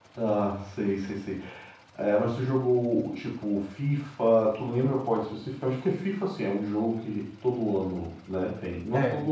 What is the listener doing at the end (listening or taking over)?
listening